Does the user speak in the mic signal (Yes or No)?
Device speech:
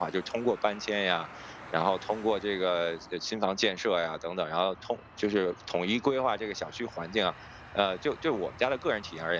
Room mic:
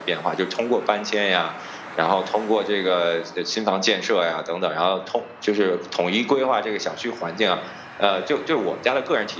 No